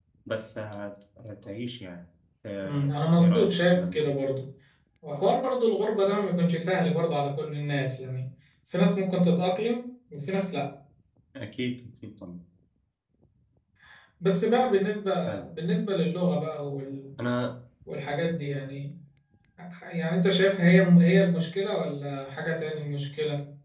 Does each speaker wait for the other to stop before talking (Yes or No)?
No